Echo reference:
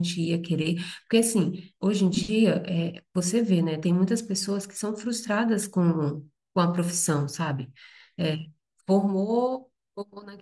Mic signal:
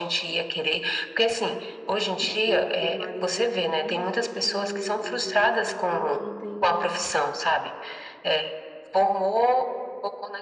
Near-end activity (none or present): present